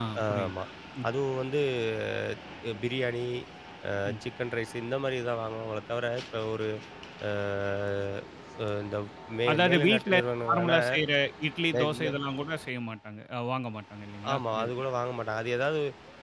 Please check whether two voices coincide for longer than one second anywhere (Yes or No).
Yes